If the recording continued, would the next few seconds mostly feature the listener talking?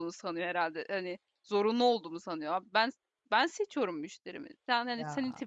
No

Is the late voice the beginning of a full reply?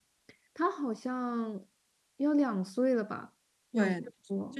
Yes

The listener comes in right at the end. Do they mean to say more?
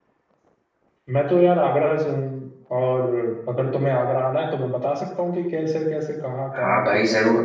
Yes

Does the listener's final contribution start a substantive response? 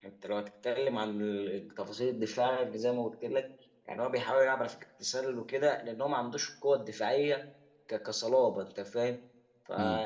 No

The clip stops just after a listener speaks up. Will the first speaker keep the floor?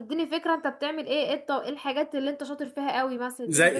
No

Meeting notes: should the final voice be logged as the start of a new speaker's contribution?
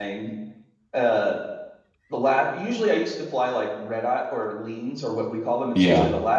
No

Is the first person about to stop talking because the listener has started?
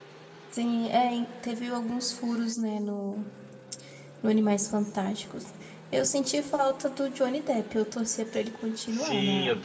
Yes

